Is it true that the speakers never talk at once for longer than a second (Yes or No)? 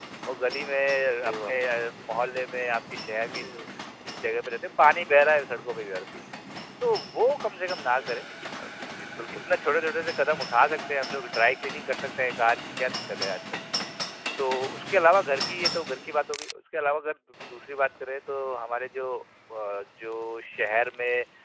Yes